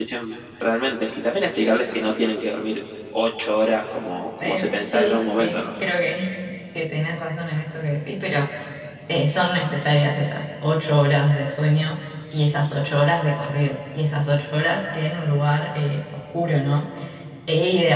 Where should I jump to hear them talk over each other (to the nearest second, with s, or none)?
4 s